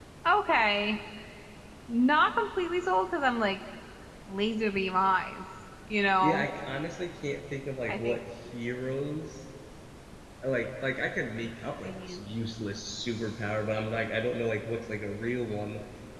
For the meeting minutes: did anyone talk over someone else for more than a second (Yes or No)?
No